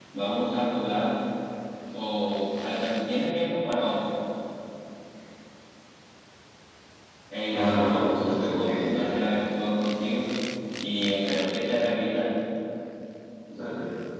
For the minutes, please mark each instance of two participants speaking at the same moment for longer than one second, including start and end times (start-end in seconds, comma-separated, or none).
7.5-8.9